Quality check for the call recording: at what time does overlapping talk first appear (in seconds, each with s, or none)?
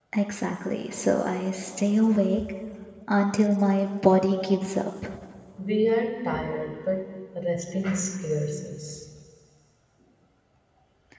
none